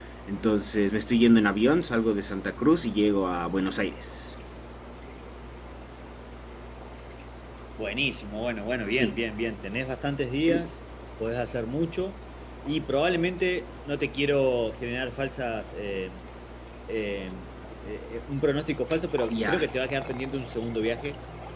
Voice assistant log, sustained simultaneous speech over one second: none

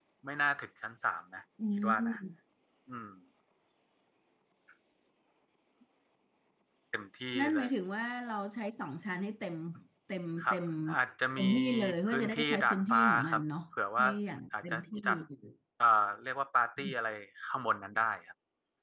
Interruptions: present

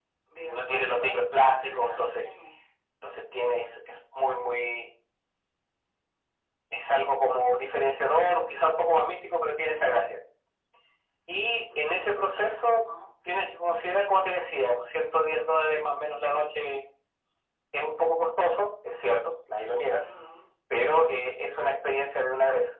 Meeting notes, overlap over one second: present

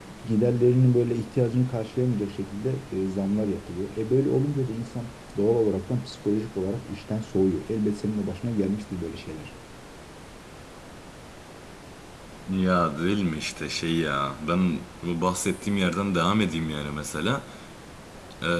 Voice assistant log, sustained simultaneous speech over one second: none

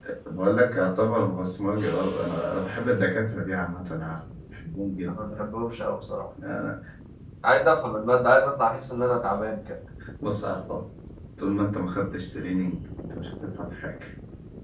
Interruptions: none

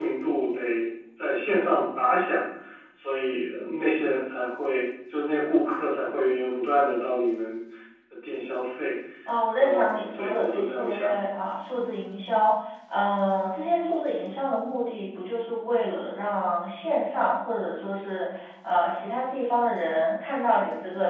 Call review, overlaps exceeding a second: present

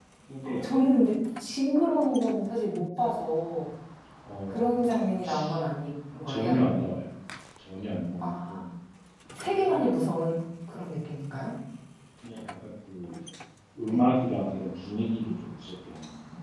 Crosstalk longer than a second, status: none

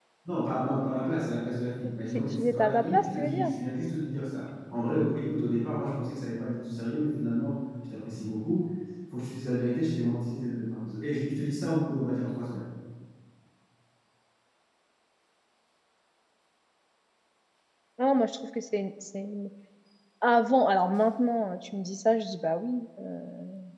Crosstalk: present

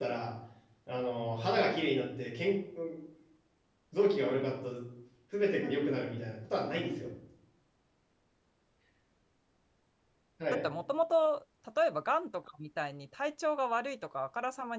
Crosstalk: none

